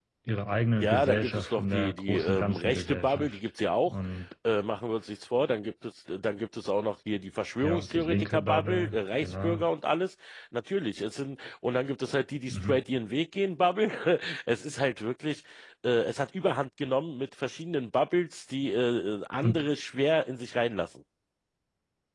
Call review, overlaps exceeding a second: present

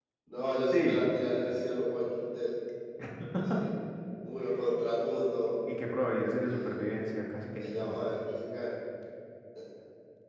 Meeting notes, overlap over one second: none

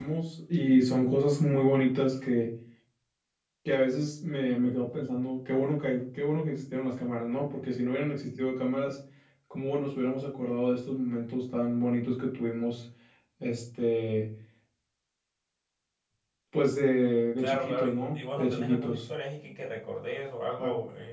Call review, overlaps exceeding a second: present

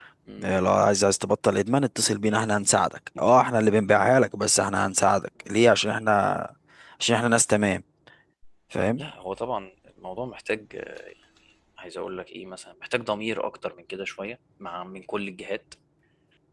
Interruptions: none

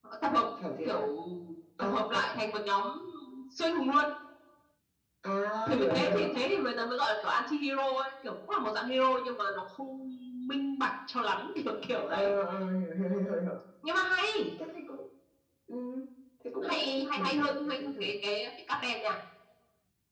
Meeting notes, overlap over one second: present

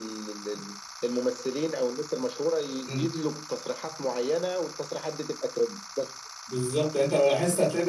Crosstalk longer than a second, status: none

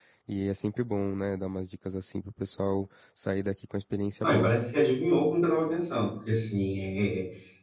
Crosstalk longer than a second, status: none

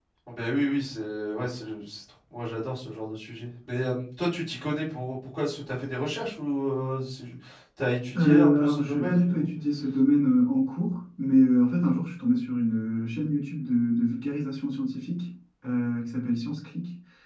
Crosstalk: present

